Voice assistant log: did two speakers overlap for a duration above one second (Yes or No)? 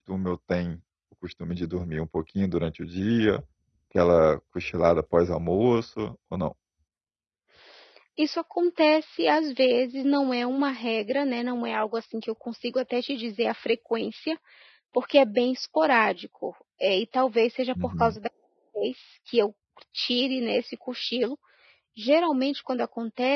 No